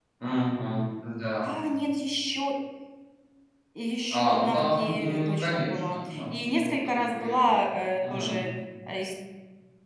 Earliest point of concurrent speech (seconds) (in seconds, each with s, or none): 4.1 s